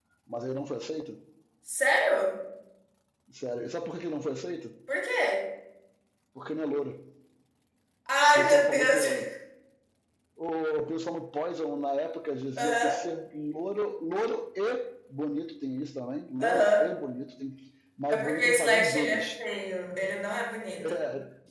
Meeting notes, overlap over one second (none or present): present